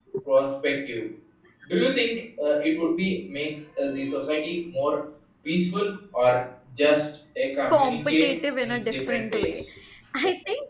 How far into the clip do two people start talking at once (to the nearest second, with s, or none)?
8 s